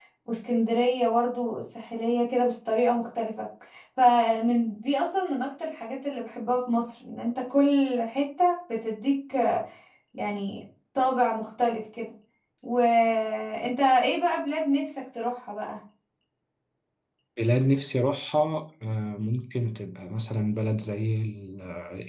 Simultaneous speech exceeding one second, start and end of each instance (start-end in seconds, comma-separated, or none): none